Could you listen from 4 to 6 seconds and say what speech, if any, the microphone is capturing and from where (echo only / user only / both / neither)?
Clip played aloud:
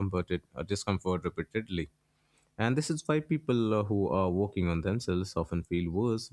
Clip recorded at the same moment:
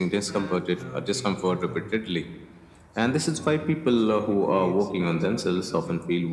both